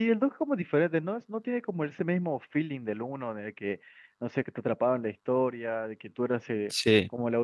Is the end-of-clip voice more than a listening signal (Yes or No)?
No